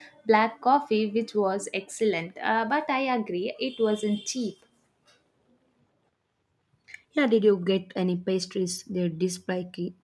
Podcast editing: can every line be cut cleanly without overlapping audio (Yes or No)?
Yes